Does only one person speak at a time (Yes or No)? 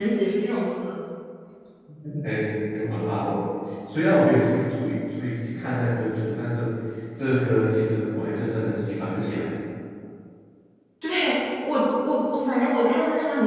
Yes